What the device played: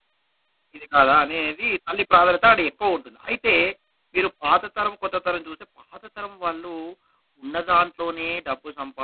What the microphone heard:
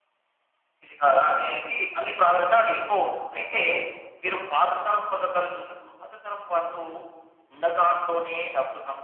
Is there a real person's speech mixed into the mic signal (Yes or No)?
No